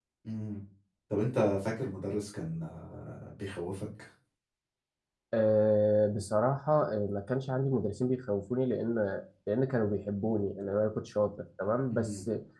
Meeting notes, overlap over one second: none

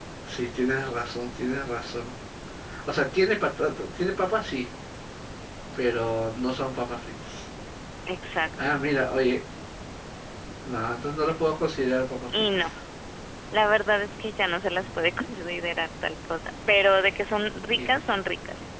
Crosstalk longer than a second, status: none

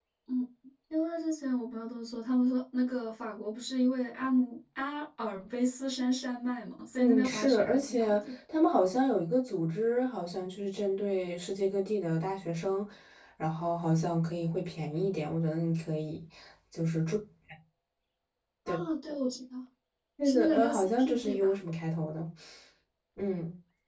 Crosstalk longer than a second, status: present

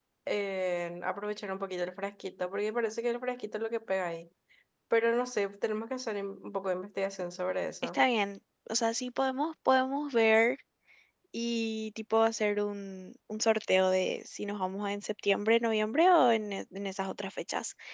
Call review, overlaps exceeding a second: none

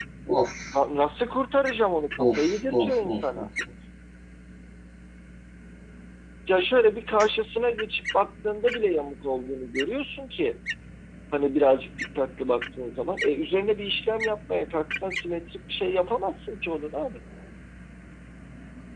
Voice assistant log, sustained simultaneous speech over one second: present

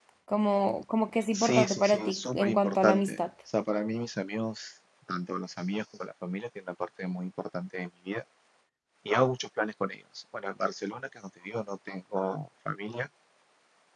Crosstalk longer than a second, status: present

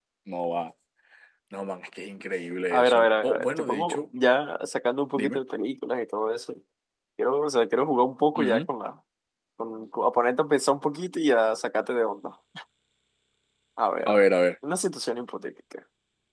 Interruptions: present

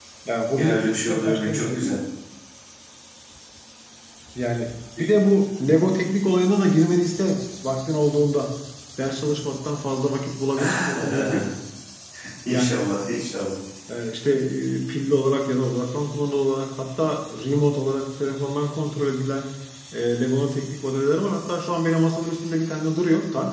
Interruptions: present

